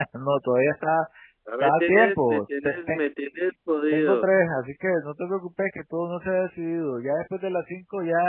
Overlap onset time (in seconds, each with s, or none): 1.6 s